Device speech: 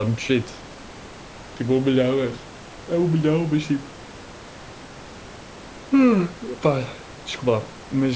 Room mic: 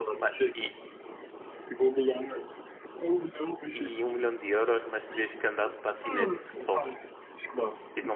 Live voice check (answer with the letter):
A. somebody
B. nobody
A